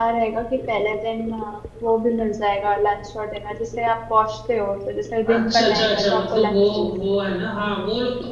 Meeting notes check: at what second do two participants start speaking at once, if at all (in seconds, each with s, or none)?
5.2 s